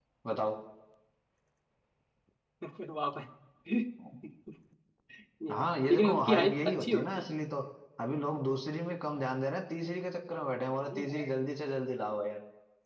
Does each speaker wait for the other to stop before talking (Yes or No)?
No